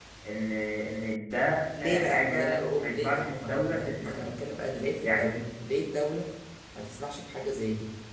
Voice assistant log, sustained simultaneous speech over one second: present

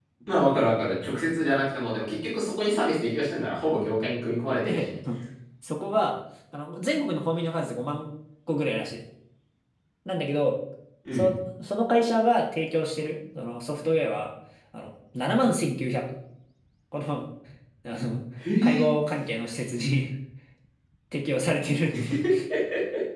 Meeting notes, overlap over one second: none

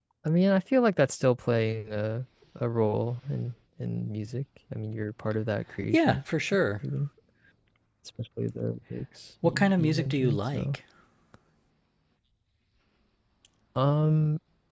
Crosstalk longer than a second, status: present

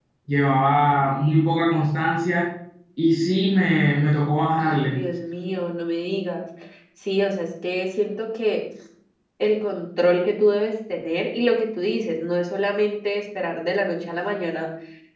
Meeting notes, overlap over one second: none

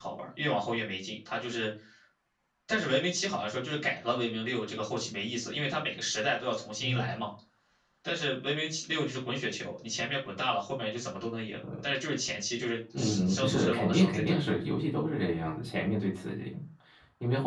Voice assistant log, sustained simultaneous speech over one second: present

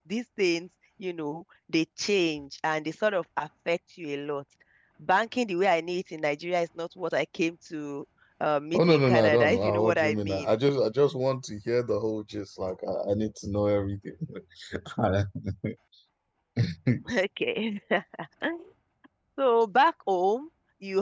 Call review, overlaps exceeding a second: present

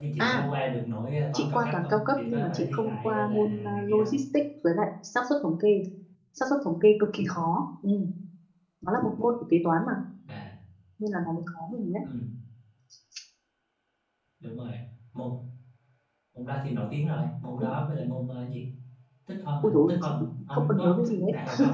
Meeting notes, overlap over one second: present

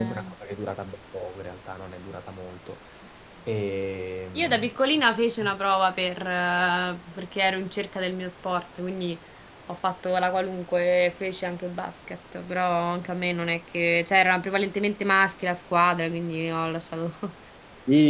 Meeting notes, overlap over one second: none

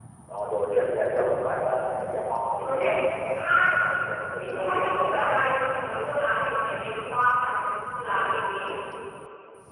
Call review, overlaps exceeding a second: none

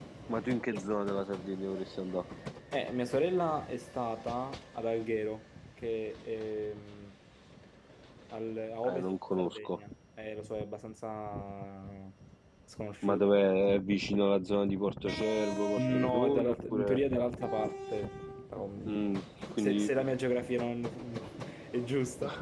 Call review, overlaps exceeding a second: present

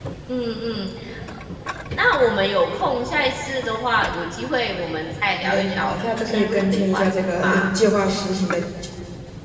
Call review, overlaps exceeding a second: present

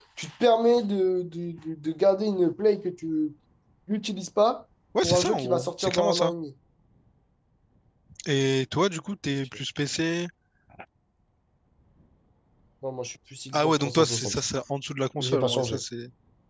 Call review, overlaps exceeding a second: present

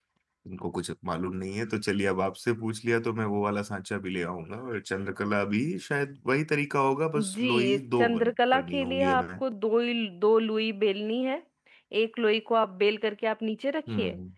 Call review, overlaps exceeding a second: present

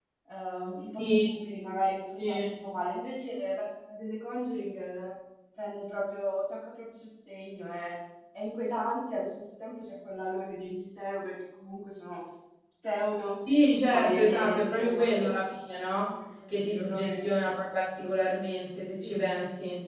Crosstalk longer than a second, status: present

